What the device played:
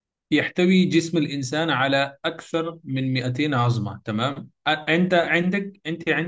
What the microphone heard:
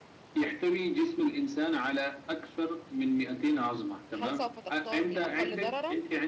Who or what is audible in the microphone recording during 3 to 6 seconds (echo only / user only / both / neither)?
both